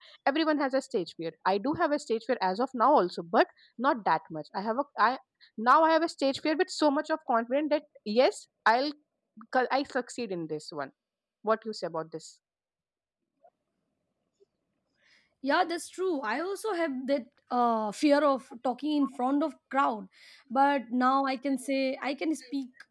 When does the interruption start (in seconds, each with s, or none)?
none